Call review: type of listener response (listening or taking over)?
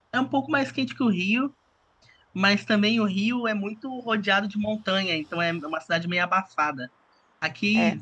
listening